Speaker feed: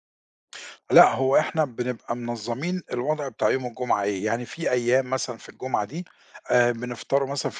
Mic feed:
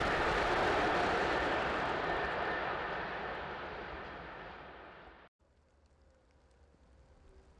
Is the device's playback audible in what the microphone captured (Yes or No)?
No